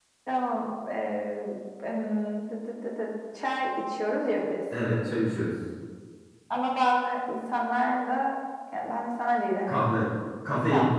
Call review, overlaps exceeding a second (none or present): none